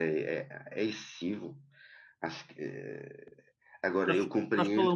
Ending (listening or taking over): taking over